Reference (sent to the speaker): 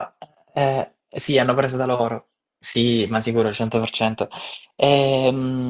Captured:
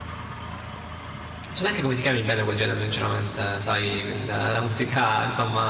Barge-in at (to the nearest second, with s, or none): 2 s